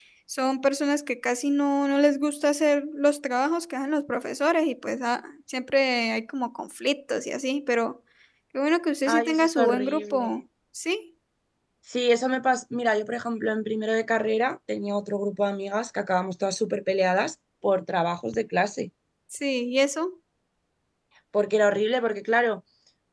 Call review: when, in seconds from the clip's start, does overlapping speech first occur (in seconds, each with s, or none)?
9.1 s